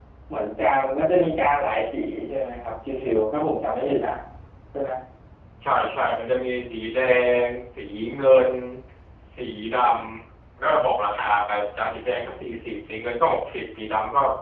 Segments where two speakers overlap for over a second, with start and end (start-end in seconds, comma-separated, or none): none